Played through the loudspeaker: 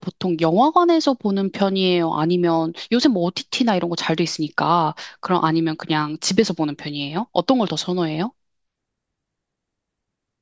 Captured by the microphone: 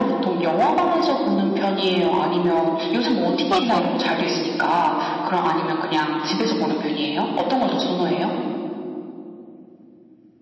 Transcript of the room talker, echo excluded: 맞아.

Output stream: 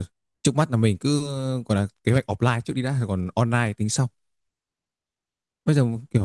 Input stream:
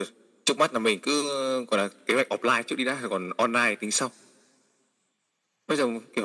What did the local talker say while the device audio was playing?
none

